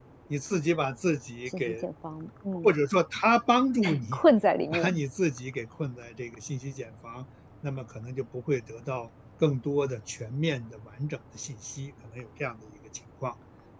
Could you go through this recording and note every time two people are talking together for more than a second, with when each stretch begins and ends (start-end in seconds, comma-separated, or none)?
none